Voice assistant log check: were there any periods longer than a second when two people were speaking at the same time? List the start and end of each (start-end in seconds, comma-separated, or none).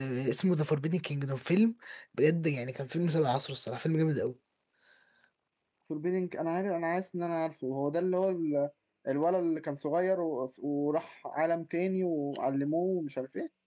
none